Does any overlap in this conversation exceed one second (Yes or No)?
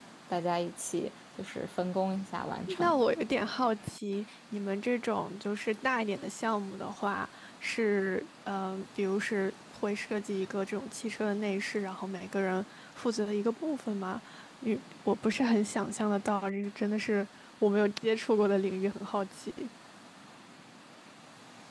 No